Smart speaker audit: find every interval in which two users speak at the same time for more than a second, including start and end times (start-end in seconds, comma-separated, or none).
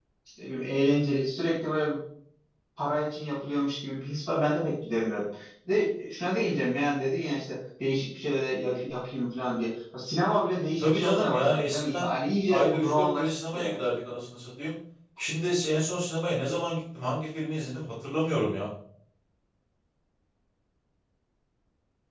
10.8-12.1, 12.5-13.7